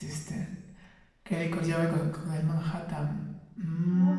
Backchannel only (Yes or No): No